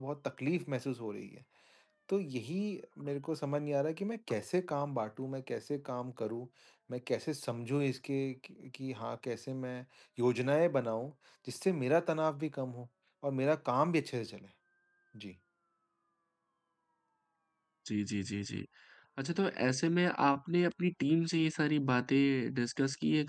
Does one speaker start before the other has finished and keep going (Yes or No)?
No